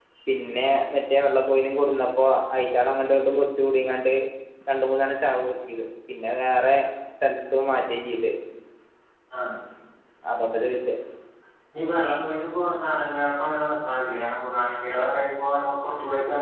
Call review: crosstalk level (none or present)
none